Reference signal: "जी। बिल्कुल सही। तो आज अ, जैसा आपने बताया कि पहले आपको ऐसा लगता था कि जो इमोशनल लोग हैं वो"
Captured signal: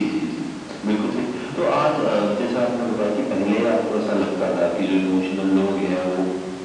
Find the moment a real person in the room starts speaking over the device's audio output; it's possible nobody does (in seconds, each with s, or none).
none